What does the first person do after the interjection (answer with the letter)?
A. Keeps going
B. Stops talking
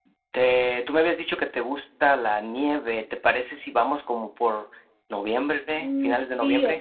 B